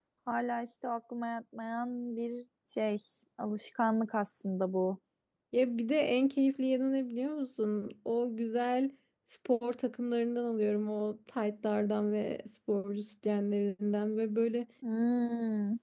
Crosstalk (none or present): none